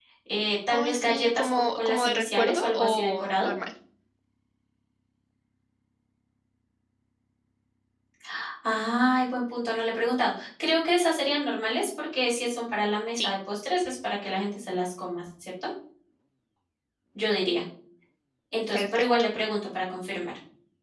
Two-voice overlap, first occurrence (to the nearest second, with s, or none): 1 s